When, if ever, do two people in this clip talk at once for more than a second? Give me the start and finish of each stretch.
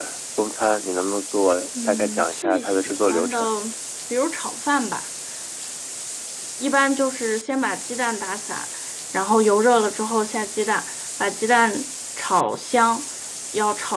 1.9-3.4

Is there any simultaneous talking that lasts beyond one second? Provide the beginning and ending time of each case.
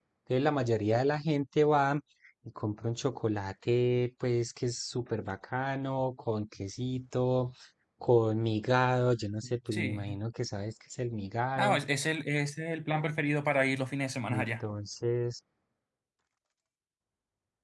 none

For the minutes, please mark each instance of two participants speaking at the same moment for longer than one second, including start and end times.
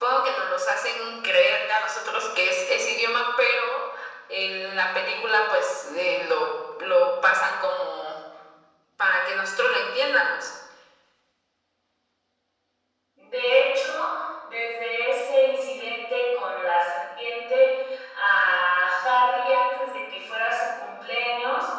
none

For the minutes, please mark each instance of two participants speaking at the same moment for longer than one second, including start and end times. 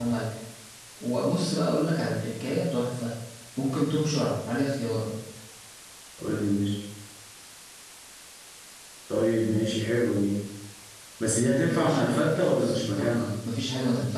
11.6-13.3

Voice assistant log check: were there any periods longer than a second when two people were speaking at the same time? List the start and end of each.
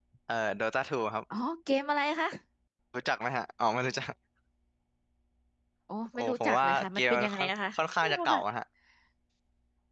6.2-8.4

